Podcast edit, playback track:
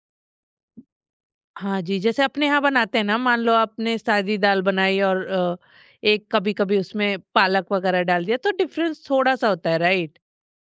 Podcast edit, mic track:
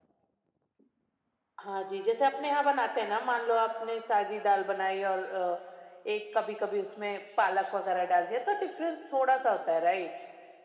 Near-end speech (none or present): none